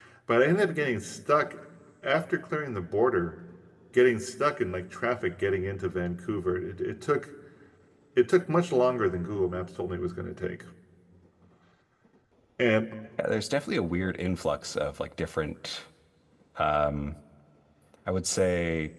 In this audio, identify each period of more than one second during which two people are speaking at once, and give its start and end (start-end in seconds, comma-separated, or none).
none